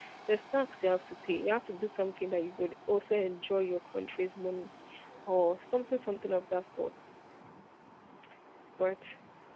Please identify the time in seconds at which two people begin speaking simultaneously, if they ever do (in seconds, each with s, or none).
none